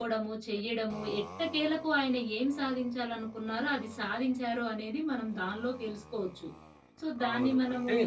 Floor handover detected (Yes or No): Yes